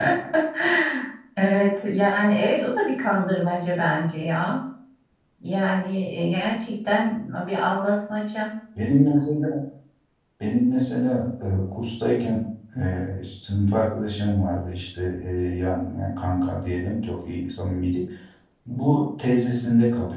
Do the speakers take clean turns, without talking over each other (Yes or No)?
Yes